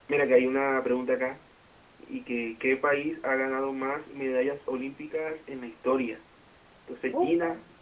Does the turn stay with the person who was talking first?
Yes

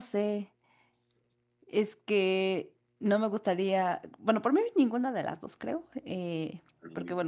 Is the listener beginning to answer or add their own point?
No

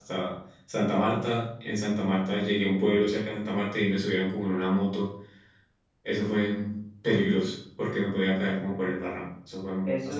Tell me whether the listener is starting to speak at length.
Yes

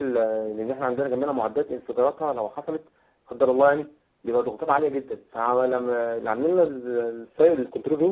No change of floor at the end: Yes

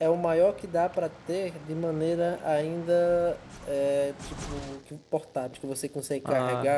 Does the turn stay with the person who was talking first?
Yes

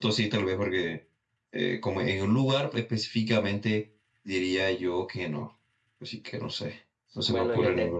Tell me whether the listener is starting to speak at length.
Yes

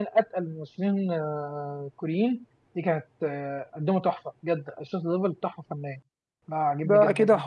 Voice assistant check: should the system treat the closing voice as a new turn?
Yes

